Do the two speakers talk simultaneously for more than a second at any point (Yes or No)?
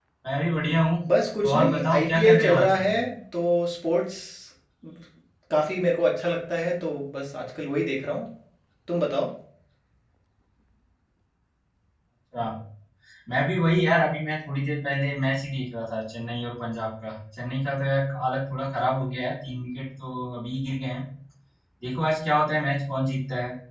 Yes